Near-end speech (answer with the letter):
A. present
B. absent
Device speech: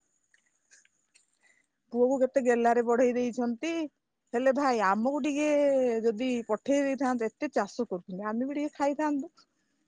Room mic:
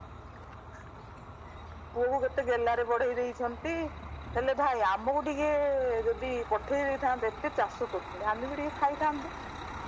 B